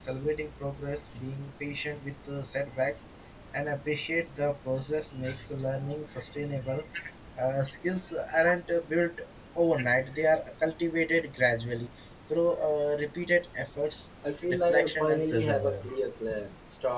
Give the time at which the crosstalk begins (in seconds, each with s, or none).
14.6 s